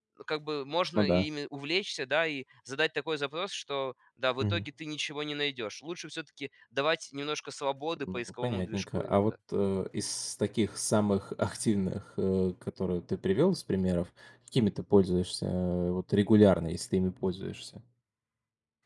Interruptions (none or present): present